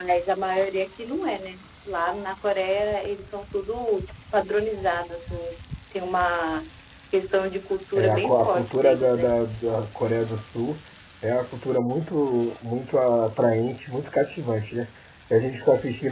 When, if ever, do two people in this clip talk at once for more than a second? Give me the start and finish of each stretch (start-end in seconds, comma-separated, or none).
8.0-9.3